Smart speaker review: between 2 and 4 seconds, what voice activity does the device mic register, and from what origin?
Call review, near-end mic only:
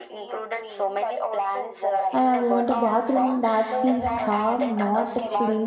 both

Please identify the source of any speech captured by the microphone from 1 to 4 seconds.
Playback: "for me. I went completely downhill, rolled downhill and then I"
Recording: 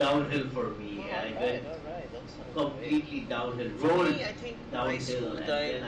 both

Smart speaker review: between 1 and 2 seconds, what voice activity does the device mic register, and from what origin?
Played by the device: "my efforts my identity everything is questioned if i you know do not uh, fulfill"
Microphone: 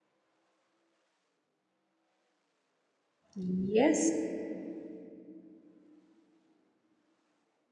neither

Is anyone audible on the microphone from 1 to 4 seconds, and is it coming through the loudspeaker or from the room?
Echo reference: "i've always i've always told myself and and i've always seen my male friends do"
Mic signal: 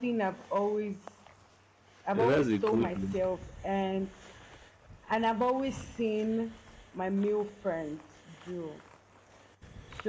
both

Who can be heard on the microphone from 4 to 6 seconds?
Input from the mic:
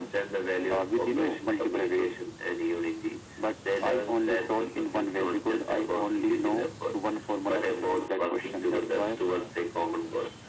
echo only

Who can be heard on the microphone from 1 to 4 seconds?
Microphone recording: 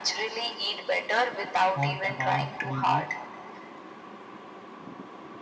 both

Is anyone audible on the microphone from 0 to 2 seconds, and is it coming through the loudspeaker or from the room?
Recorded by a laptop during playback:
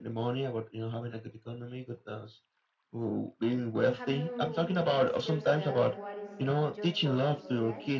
echo only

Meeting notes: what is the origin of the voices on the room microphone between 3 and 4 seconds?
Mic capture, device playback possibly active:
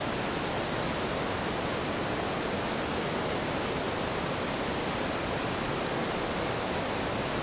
neither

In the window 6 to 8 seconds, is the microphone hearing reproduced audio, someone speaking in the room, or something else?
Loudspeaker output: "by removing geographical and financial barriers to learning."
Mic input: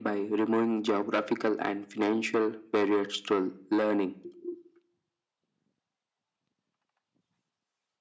neither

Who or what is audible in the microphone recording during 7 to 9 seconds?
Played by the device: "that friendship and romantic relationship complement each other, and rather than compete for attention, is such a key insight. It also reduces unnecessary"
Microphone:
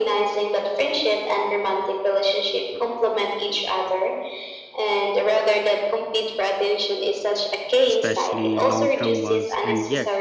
both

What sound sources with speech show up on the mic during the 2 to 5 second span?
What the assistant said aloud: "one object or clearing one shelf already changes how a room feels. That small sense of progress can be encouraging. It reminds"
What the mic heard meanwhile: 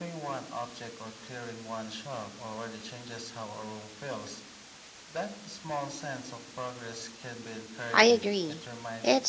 echo only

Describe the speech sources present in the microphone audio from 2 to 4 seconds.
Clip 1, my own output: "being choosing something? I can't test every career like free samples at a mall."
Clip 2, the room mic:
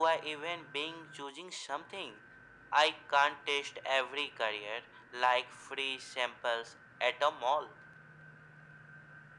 echo only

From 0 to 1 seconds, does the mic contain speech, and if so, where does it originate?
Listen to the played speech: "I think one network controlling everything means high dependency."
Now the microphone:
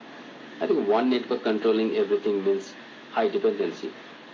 echo only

